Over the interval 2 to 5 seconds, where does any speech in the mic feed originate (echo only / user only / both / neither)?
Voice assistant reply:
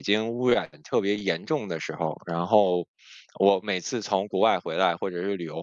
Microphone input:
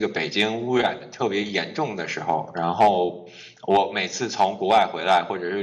echo only